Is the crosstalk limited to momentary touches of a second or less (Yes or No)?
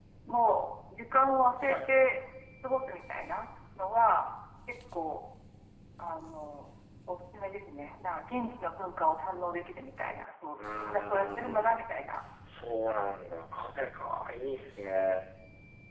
No